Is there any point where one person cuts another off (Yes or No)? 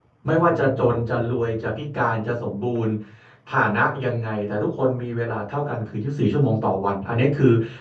No